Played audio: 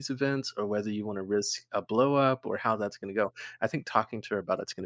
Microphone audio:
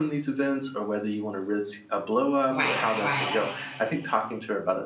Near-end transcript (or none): Right. Right.